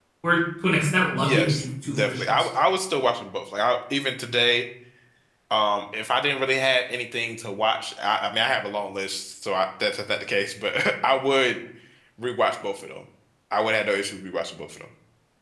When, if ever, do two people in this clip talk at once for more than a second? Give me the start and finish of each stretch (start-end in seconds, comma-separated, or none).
1.2-2.5